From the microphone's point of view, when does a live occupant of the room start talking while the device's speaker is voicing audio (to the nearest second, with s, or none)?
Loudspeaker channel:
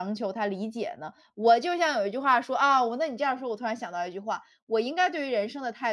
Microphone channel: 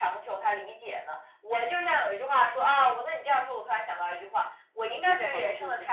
5 s